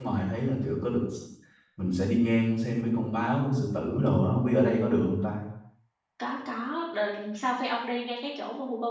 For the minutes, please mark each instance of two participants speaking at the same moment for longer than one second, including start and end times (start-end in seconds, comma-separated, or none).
none